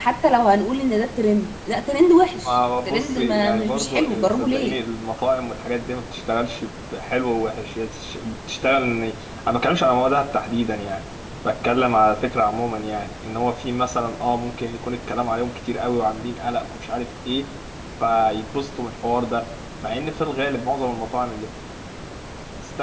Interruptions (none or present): present